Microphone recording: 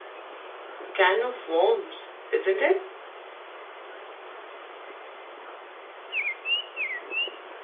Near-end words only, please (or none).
can of worms, isn't it?